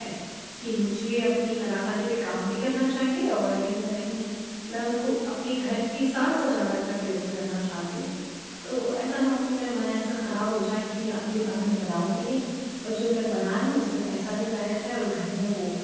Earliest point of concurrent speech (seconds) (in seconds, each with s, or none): none